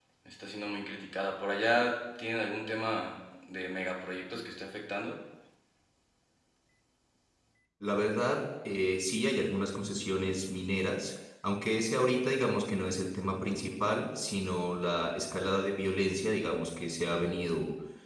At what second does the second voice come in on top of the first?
none

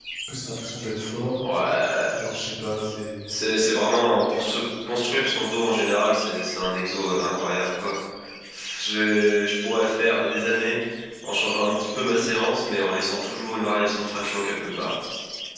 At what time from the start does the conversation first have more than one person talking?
none

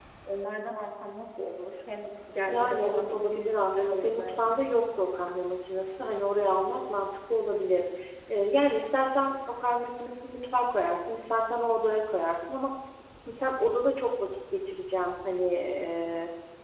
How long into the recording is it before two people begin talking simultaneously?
2.5 s

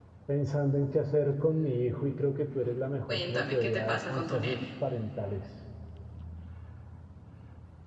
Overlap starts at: 3.1 s

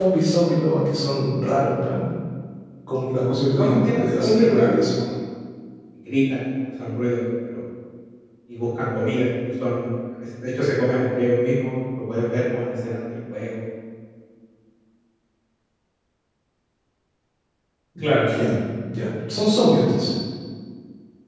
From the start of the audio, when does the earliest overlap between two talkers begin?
3.6 s

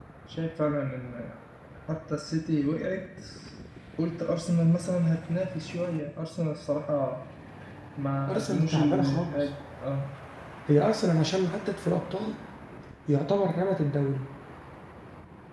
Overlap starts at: 8.3 s

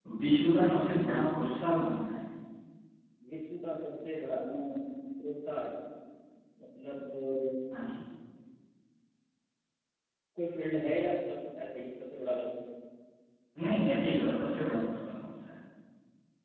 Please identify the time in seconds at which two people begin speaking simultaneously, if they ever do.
none

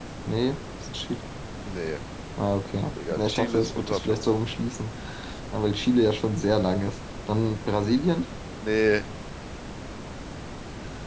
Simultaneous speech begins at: 3.1 s

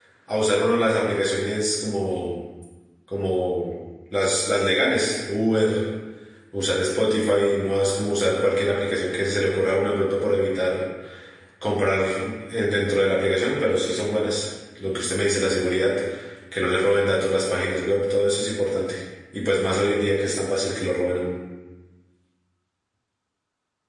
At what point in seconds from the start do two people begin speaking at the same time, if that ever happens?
none

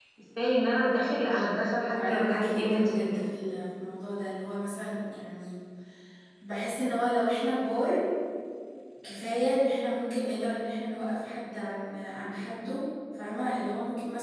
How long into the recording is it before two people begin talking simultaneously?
1.9 s

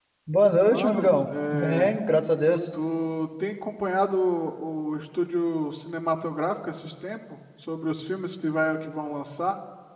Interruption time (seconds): 0.7 s

